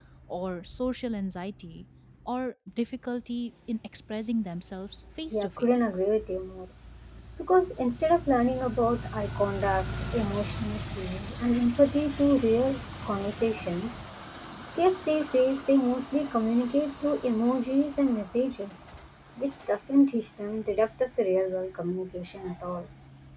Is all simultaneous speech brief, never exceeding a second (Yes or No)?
Yes